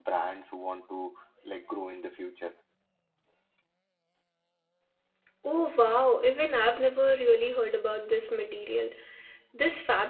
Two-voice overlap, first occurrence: none

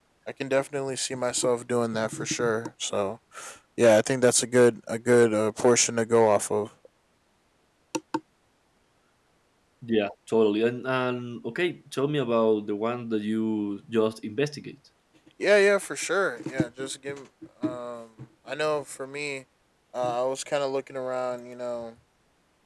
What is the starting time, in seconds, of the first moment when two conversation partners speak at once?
none

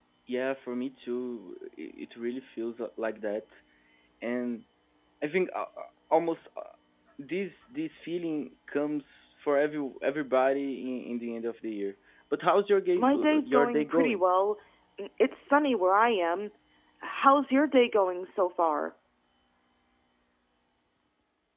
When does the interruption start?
13.0 s

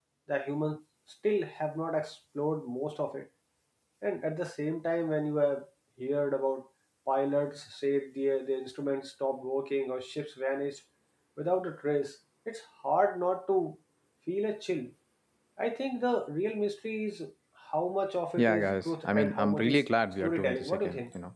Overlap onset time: 18.4 s

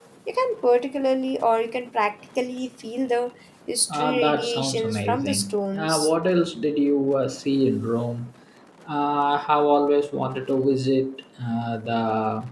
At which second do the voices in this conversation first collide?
3.9 s

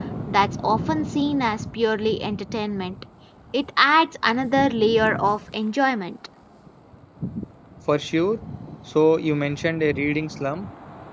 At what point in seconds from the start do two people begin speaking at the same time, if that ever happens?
none

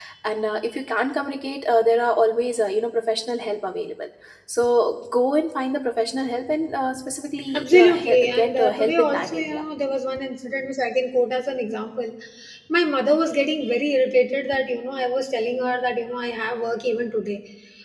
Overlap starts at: 7.5 s

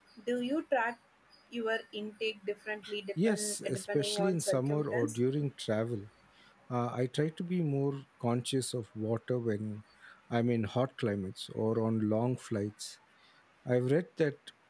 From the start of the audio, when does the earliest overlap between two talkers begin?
3.2 s

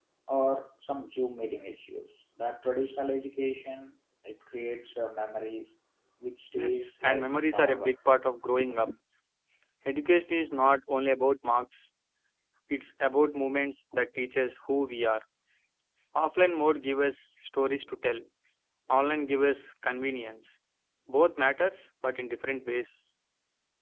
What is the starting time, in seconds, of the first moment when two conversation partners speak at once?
6.5 s

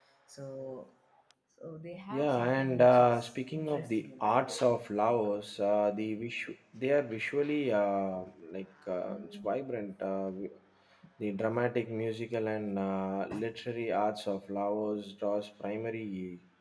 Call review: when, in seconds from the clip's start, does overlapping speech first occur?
2.1 s

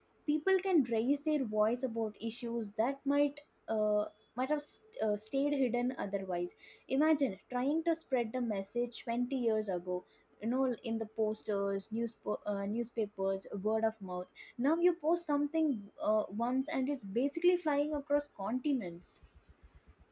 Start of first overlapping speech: none

